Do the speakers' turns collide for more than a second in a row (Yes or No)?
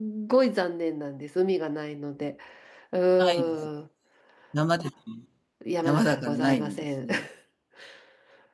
Yes